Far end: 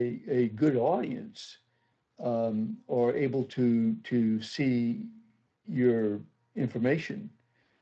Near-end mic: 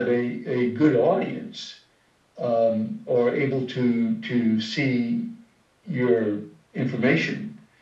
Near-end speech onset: none

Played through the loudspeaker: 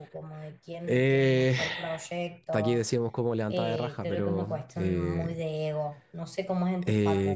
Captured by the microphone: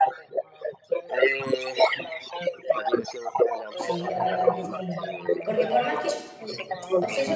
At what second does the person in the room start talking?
3.8 s

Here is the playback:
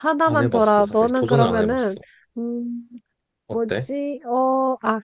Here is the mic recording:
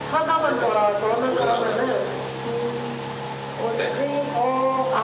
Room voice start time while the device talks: none

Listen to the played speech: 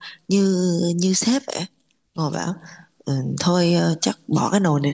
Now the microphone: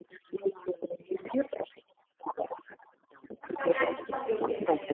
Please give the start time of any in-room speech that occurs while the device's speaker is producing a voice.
3.5 s

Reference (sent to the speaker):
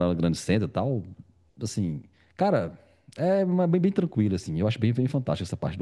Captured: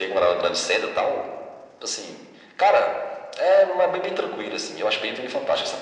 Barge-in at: none

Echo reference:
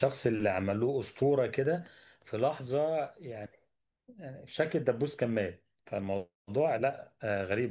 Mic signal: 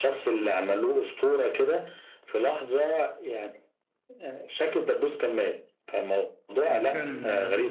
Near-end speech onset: 6.7 s

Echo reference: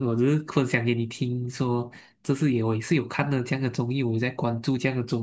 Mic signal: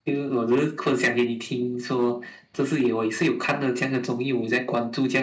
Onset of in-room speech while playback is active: none

